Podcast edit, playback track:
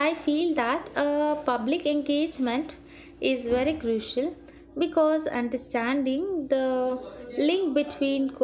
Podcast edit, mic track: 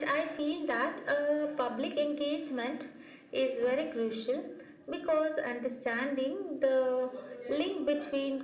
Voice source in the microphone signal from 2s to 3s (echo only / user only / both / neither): echo only